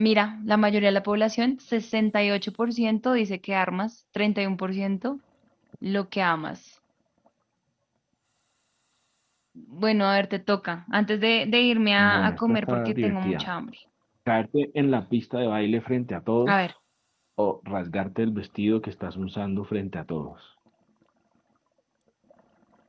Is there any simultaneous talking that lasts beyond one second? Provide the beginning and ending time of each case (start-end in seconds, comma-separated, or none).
12.0-13.5